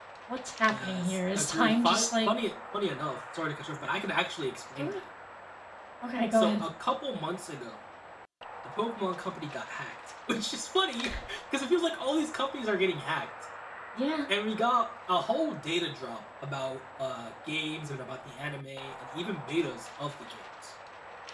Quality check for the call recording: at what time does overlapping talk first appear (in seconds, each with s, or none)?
0.7 s